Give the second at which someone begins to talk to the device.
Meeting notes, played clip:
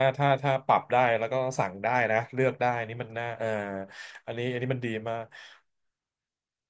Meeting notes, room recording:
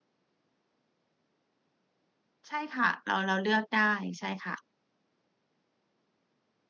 2.5 s

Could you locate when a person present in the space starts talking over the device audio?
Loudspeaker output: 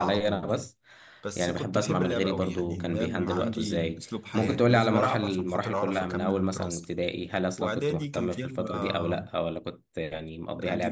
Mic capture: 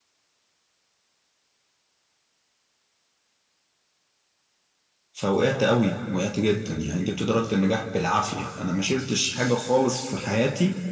5.1 s

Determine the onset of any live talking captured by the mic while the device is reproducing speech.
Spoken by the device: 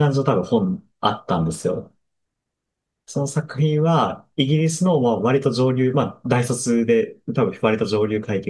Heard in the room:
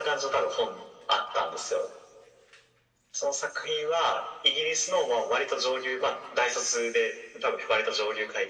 none

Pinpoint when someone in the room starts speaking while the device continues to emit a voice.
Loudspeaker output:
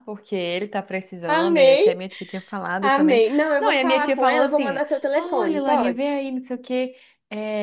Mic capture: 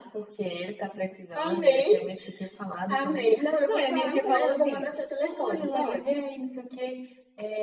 4.0 s

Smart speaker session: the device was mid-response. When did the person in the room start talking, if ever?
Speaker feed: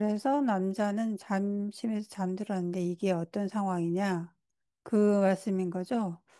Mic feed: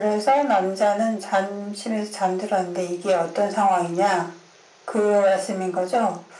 none

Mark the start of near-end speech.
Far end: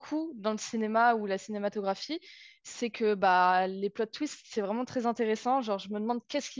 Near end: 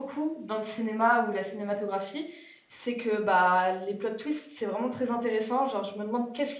none

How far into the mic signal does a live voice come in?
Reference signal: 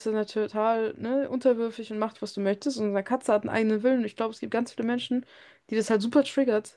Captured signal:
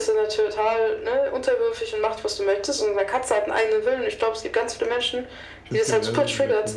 5.6 s

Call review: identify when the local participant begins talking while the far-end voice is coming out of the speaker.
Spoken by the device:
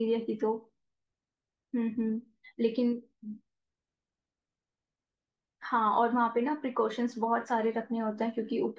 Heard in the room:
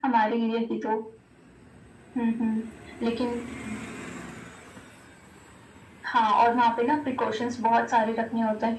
none

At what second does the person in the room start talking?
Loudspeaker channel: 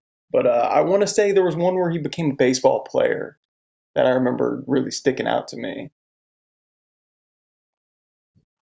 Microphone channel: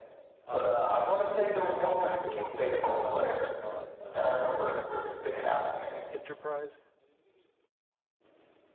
0.5 s

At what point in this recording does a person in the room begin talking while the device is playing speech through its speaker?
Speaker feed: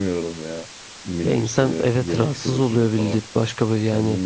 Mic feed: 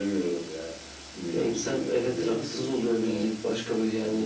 none

